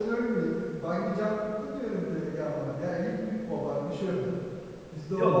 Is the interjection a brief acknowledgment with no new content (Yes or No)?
No